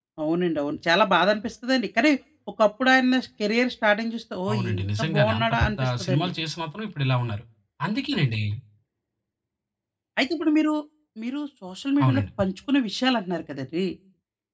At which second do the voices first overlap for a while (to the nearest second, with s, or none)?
5 s